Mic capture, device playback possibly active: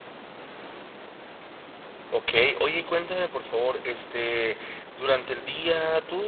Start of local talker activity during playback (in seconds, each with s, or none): 2.1 s